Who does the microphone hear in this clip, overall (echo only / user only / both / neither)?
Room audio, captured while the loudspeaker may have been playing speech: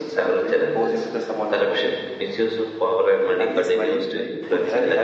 both